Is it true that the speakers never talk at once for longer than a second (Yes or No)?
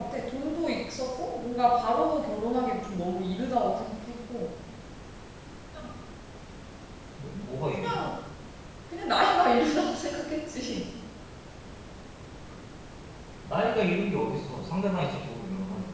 Yes